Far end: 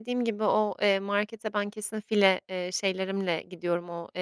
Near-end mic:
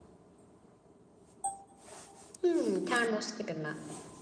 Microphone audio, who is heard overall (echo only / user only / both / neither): user only